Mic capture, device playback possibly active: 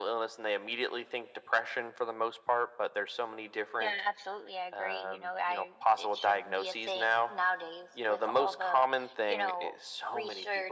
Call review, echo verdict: present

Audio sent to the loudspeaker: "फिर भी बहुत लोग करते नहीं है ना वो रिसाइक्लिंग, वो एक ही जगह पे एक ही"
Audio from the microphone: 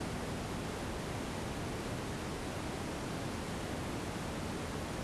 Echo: none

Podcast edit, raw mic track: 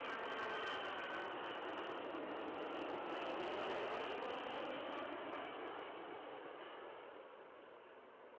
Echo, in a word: none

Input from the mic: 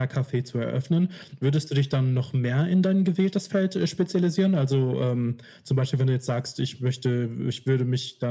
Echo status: present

